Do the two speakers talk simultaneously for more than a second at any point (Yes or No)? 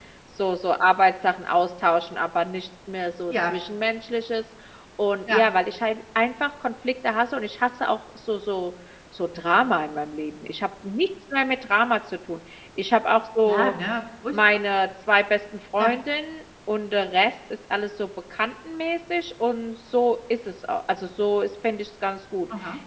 No